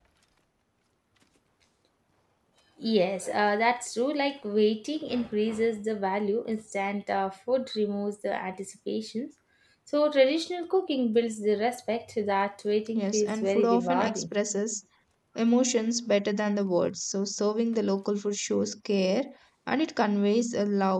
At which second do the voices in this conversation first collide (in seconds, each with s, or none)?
12.9 s